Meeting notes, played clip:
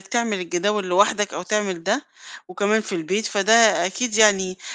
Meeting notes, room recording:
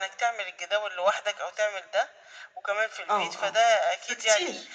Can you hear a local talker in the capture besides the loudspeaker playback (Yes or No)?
Yes